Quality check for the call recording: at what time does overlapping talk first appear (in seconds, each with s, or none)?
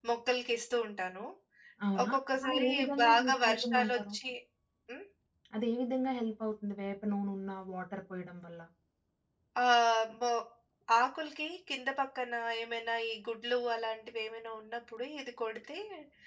2.0 s